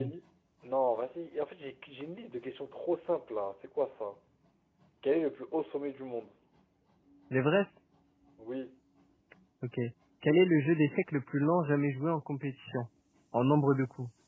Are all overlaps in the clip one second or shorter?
Yes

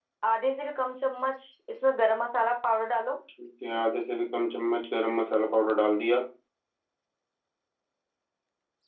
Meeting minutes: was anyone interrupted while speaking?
No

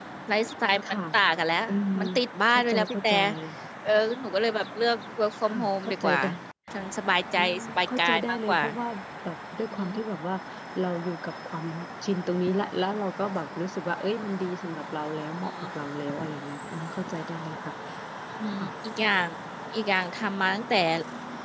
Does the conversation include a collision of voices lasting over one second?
Yes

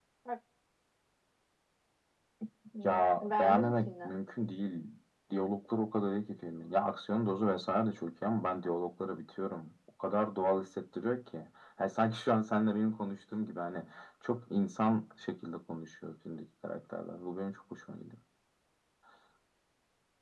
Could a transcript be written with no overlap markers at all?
No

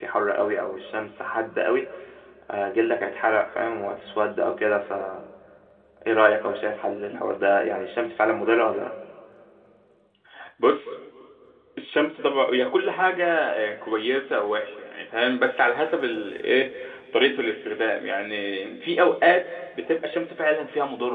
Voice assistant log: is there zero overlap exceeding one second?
Yes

